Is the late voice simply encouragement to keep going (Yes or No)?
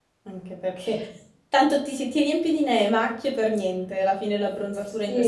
No